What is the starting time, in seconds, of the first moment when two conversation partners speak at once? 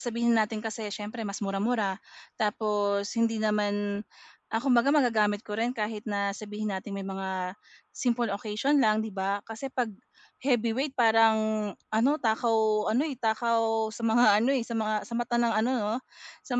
none

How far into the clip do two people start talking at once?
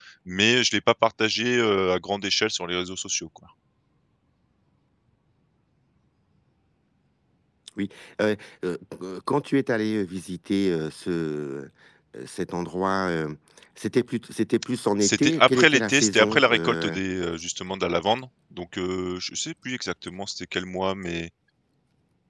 15 s

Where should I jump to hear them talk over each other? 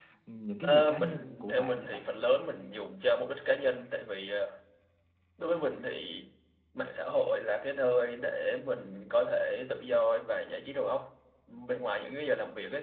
1 s

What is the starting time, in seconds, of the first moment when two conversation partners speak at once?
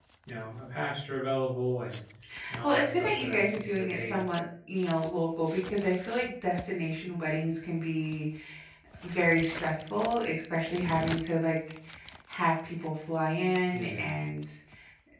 3 s

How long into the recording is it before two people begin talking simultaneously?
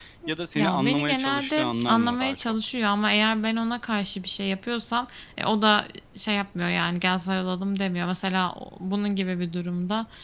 1 s

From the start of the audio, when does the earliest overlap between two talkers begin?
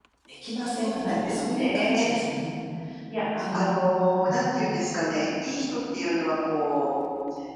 1 s

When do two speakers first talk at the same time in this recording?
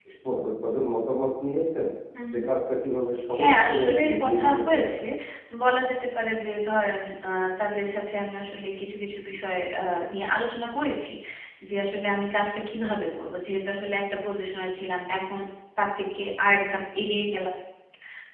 3 s

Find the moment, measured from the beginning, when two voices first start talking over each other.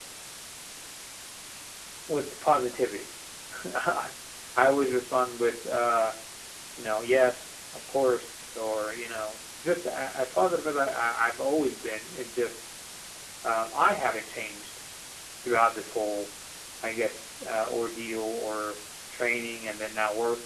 none

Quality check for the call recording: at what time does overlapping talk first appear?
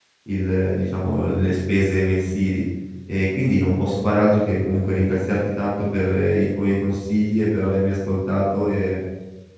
none

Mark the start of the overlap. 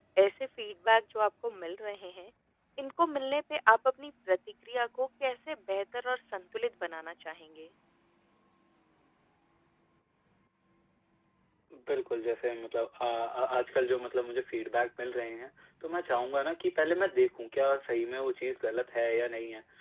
none

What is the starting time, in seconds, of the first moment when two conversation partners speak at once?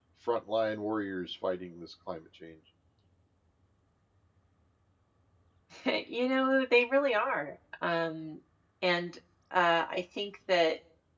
none

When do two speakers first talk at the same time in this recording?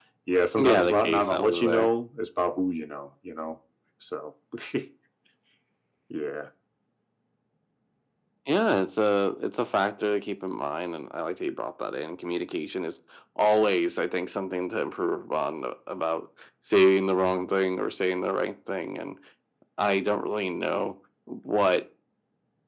1 s

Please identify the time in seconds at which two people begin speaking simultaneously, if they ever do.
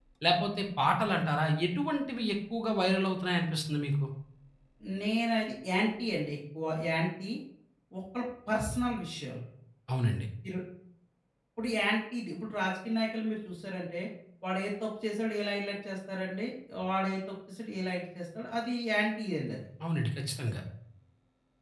none

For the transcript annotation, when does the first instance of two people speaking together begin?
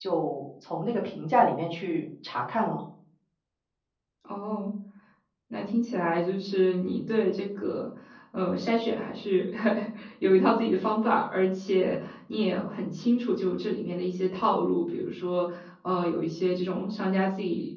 none

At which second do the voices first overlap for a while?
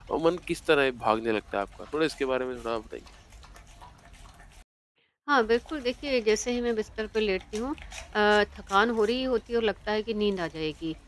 none

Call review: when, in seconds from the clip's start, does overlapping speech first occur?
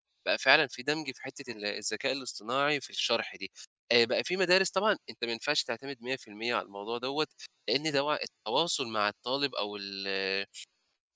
none

